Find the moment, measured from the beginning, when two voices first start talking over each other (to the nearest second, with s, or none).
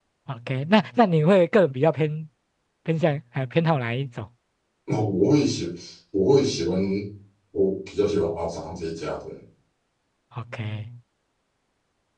none